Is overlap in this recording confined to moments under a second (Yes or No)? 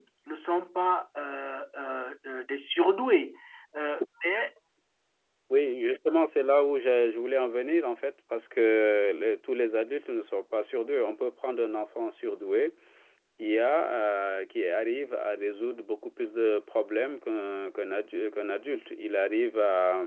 Yes